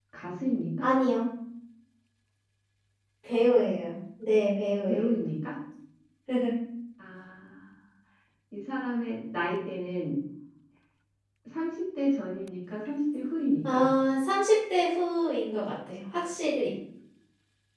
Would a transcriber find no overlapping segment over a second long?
Yes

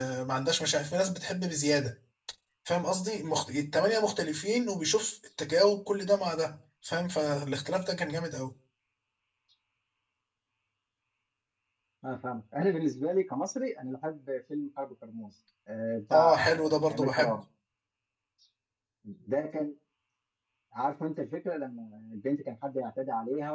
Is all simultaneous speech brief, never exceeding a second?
No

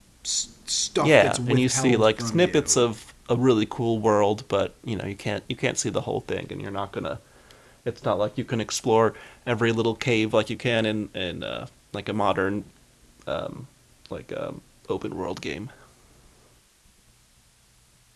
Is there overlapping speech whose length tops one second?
Yes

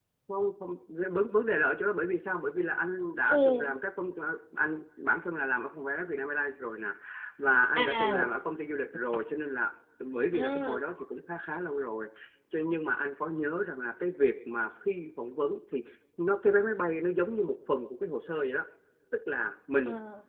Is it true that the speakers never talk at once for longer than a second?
Yes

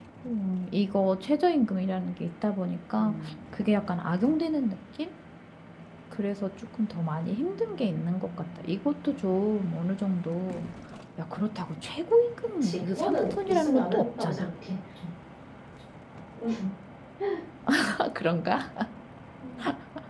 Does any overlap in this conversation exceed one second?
Yes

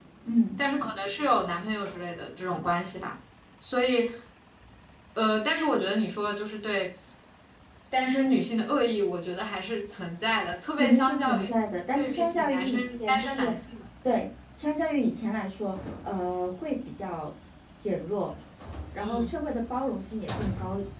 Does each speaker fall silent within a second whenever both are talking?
No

